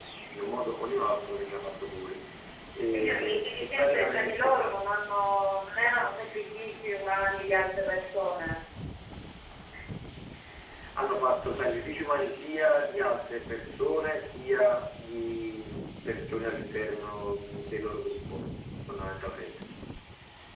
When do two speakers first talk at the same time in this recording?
2.9 s

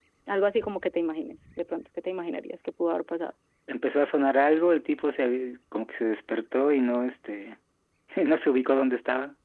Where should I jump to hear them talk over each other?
none

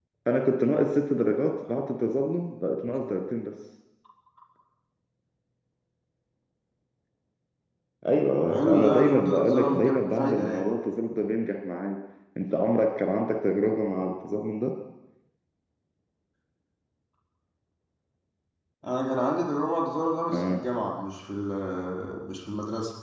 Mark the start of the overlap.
8.4 s

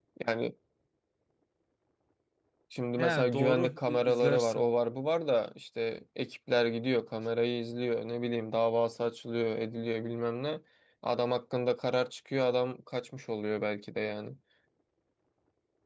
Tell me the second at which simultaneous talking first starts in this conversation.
3.0 s

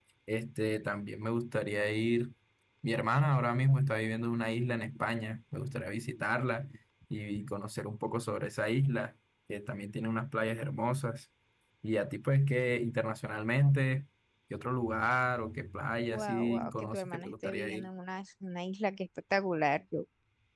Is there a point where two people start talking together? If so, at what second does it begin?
16.1 s

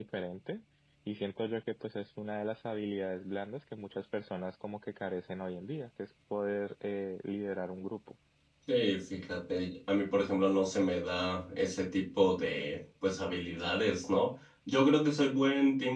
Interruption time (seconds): none

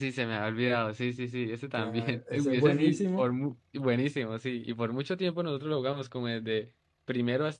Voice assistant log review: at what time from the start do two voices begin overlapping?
1.7 s

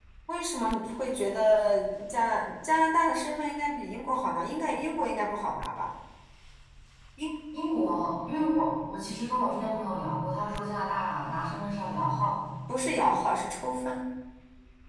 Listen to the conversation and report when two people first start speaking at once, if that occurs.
none

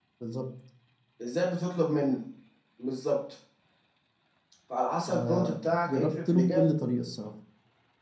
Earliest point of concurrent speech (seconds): 5.1 s

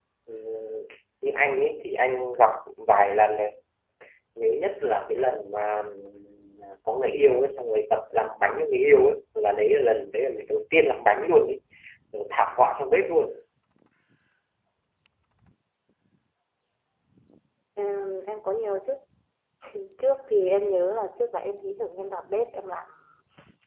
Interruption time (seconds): none

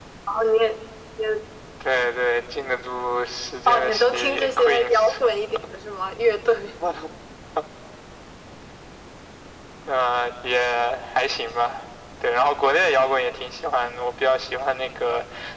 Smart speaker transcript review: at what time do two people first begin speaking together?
3.7 s

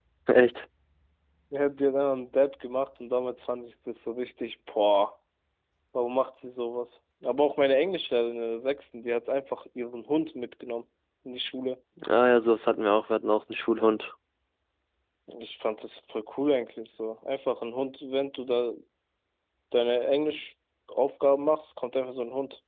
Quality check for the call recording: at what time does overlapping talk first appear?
none

